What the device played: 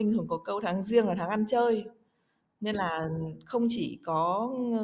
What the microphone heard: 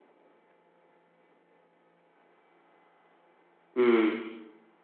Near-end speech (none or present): present